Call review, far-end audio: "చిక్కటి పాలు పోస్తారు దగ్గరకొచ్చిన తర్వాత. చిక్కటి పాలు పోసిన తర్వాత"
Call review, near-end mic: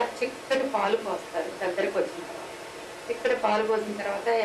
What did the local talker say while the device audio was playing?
none

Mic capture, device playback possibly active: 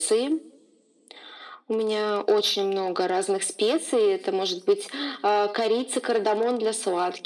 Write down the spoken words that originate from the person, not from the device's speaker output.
none

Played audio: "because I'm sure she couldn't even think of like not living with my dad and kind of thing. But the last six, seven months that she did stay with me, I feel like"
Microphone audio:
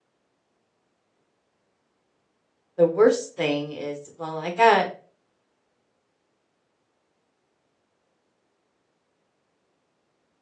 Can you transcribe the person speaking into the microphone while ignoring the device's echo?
the worst thing is, well, I got,

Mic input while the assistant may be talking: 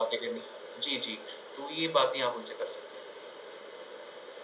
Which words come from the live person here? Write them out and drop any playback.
none

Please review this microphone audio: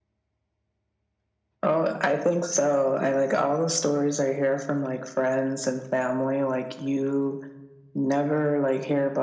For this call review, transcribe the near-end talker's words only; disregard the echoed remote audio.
none

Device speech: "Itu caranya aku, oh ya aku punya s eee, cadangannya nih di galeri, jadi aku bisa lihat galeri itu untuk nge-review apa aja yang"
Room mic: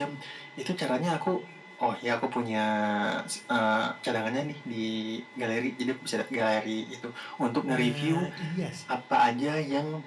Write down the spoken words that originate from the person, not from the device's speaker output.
Eee, iya sih,

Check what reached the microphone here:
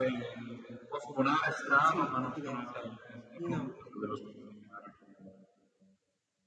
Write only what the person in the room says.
Sì, è diverso. No,

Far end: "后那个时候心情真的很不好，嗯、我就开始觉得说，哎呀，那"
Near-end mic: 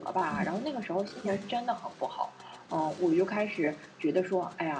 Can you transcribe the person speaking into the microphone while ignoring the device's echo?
嗯，对。

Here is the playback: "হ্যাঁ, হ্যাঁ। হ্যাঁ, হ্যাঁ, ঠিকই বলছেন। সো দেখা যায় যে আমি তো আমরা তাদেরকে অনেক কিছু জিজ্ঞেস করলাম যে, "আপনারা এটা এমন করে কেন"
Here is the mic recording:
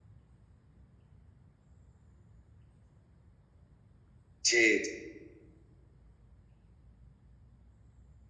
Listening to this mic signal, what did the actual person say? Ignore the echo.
জি, জি।

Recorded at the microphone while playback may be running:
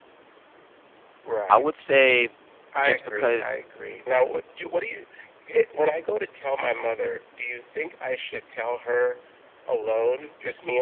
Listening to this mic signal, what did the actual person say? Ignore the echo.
I would say just because.

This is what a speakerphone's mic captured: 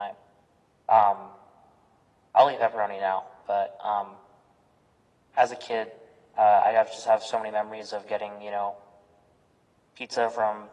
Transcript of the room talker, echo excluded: none

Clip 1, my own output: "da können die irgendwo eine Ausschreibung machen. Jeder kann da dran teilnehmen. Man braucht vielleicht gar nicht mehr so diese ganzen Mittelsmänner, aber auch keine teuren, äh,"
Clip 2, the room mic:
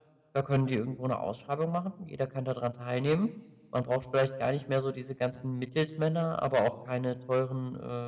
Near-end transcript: none

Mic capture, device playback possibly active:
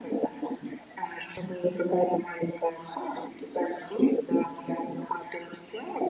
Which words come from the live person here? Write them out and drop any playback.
none

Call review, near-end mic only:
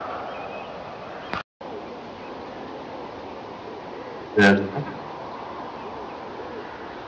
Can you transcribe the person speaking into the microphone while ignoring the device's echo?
Certo.

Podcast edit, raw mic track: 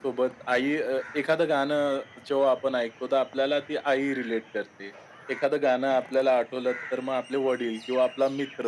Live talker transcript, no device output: none

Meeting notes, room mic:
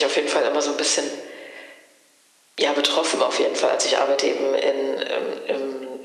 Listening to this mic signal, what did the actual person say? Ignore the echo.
none

